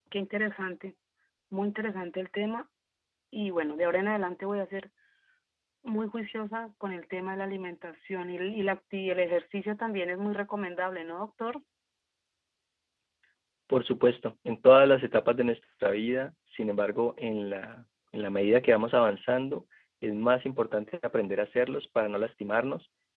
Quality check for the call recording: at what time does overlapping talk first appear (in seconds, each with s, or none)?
none